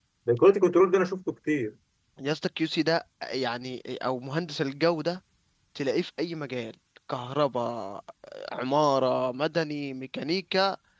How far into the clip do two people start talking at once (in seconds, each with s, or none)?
none